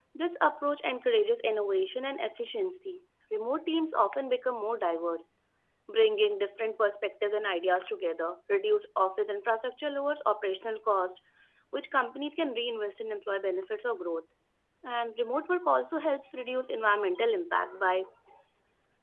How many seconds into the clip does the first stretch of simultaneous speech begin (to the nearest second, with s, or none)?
none